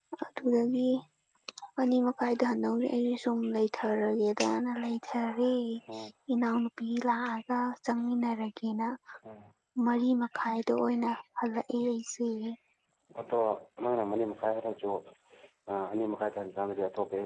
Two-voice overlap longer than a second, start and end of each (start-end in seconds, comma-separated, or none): none